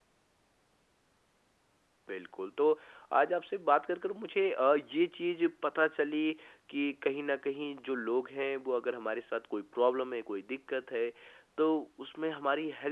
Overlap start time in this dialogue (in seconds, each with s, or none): none